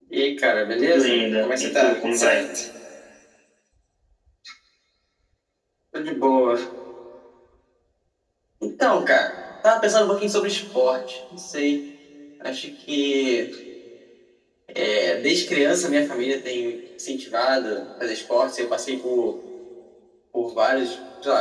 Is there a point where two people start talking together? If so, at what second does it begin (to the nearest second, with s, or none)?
1 s